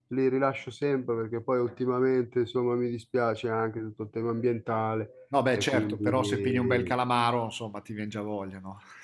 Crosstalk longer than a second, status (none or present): present